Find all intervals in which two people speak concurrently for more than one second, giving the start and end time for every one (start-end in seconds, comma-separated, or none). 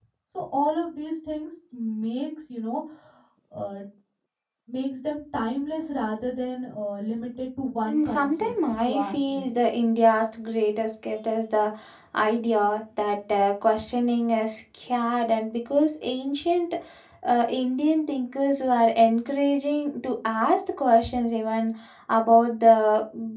7.8-9.5